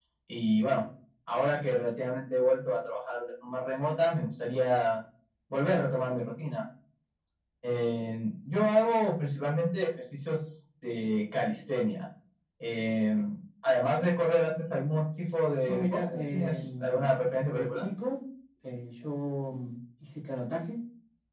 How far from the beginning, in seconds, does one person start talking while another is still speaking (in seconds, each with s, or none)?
15.7 s